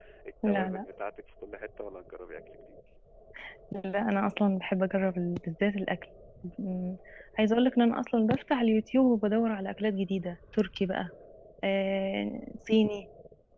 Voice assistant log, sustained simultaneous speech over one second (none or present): none